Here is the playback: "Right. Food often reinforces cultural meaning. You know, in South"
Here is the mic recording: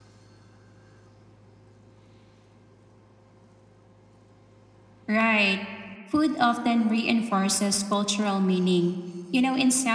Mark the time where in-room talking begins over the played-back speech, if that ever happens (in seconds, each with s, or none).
none